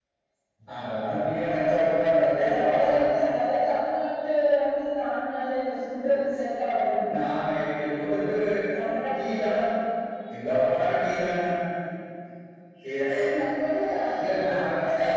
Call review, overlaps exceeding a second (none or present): none